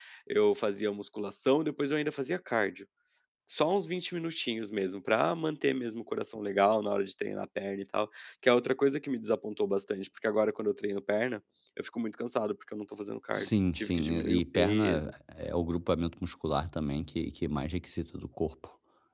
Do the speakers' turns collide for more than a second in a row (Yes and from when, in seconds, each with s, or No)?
Yes, from 13.3 s